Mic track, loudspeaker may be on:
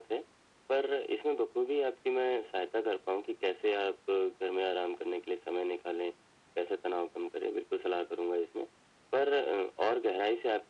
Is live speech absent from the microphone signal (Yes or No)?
Yes